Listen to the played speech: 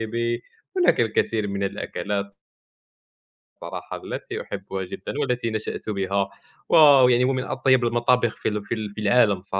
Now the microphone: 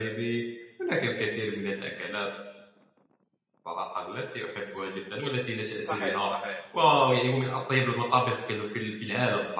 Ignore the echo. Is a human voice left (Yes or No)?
Yes